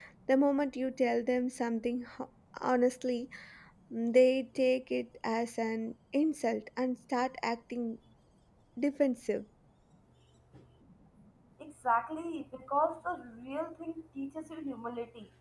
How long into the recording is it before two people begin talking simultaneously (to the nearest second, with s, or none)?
none